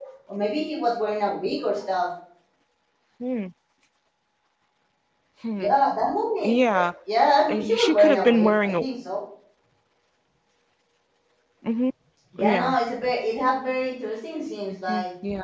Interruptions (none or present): present